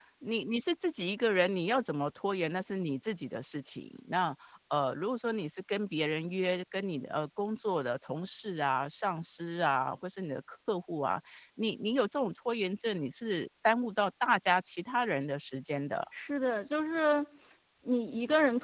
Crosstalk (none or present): none